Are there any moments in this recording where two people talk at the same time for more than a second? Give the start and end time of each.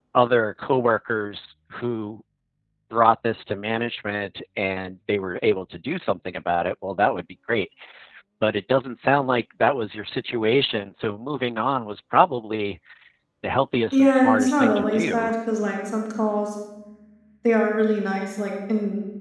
13.9-15.3

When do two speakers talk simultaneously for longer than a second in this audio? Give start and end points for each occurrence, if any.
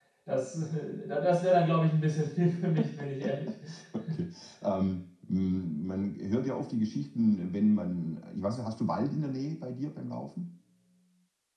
none

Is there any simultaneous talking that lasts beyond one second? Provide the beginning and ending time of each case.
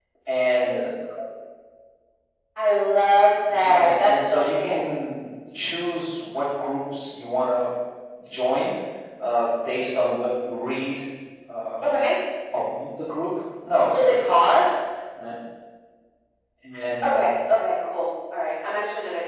3.5-4.8

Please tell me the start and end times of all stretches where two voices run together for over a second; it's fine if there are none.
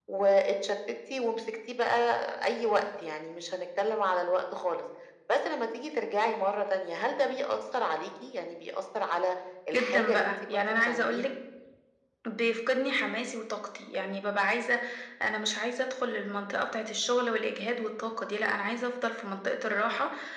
9.8-11.3

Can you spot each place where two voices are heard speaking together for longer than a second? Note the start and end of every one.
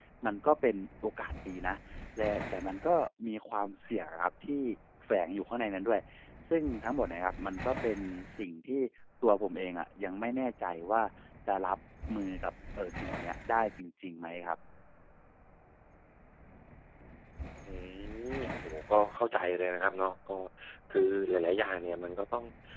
none

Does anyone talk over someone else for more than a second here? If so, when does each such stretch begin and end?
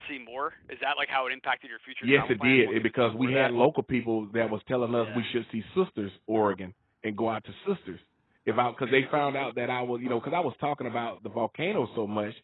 2.0-3.5

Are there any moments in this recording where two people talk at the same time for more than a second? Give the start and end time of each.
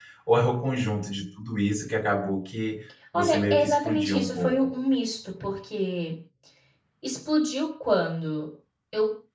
3.1-4.5

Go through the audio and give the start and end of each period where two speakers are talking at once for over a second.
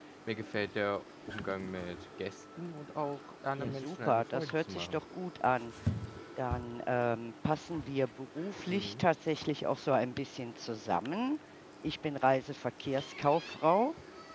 3.6-5.0

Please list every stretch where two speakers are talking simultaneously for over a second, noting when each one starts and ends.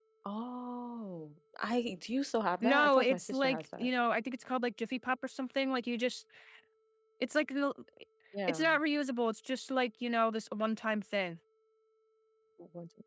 2.6-3.9

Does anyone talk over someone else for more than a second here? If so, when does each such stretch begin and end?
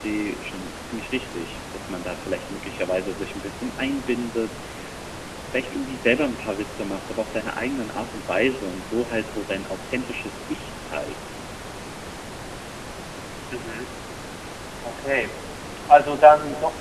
none

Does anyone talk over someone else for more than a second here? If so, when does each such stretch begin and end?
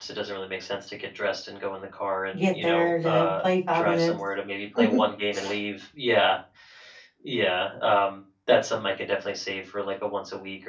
2.3-4.1

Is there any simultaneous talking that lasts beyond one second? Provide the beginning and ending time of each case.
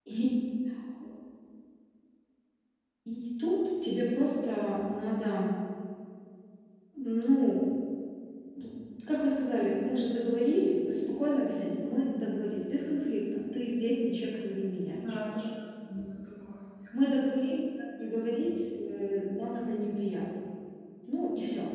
none

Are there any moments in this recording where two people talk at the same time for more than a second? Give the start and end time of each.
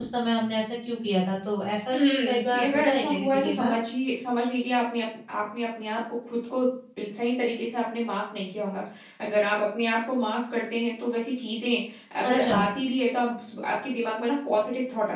1.9-3.7

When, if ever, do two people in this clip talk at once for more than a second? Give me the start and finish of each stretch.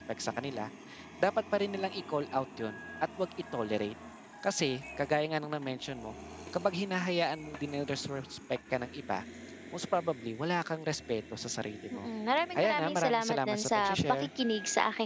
12.6-14.3

